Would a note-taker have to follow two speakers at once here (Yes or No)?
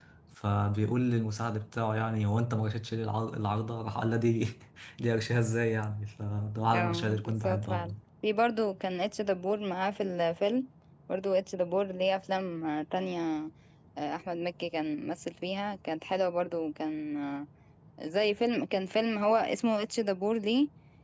Yes